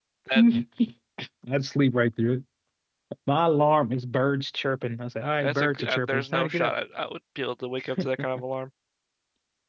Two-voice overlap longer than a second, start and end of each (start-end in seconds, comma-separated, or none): 5.4-6.7